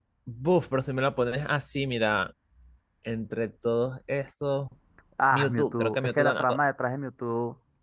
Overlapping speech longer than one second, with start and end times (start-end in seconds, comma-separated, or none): 5.3-6.6